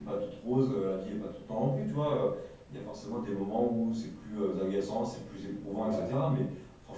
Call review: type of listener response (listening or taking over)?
listening